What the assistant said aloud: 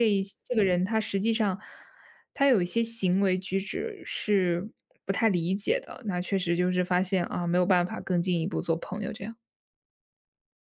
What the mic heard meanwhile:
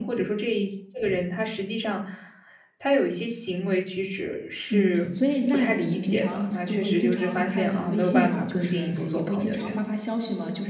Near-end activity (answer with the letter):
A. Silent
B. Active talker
B